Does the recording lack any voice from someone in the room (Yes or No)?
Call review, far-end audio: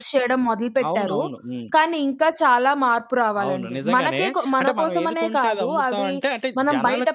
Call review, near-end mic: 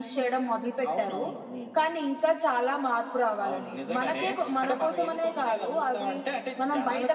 Yes